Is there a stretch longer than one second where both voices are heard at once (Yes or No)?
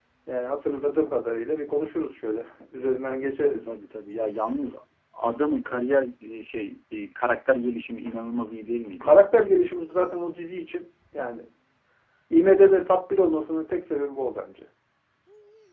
No